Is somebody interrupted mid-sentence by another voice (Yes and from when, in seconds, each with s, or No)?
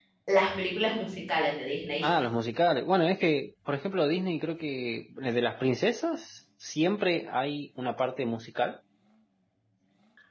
No